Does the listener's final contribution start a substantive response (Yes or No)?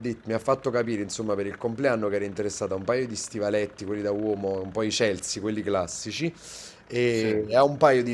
No